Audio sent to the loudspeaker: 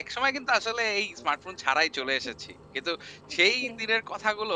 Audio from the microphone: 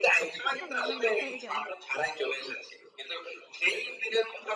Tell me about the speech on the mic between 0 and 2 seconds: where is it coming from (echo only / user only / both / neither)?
both